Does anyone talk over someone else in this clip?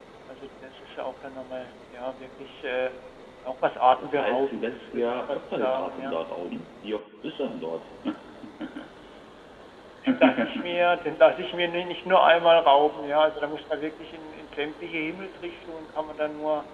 Yes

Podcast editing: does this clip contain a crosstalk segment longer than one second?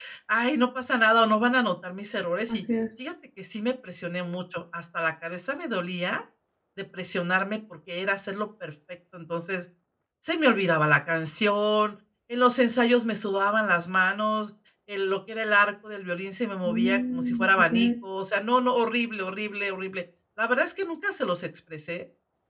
Yes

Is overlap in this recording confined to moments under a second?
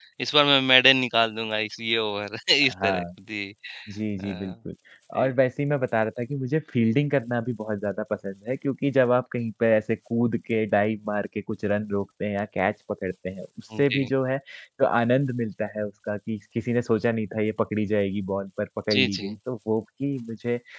Yes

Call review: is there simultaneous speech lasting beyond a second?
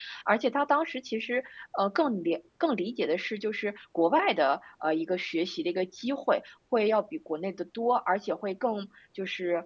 No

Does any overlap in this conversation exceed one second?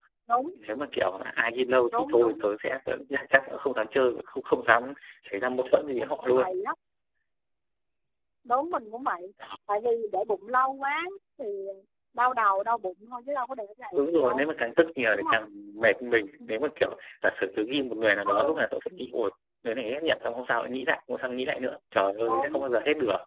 No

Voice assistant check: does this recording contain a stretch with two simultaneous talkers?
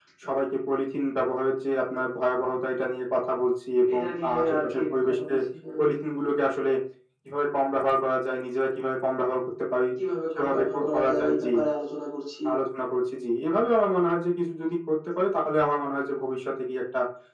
Yes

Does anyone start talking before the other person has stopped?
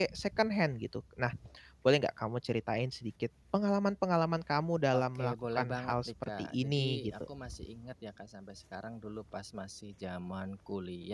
Yes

